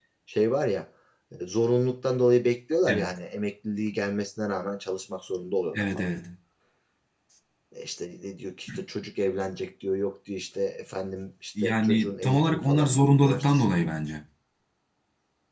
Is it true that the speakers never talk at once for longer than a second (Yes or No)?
No